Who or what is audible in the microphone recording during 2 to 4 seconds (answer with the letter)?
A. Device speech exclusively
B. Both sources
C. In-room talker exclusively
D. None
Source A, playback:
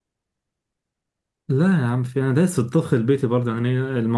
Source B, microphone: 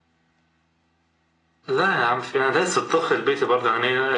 A